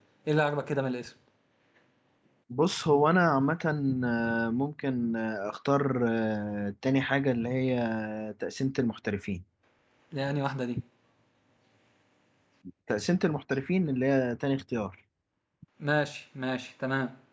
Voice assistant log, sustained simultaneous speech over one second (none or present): none